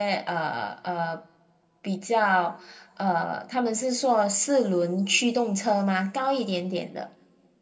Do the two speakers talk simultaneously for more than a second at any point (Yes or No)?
No